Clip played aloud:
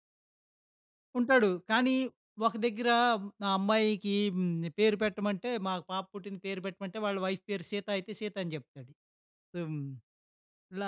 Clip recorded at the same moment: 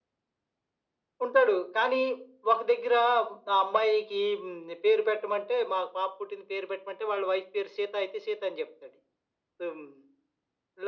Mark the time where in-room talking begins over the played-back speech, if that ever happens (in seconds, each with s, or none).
none